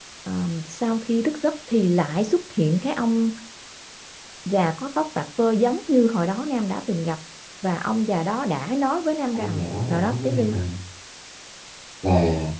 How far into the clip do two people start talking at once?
9.4 s

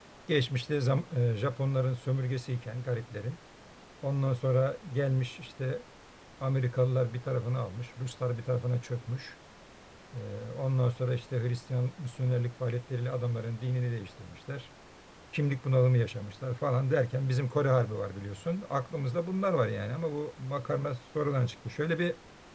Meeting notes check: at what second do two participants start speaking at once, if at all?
none

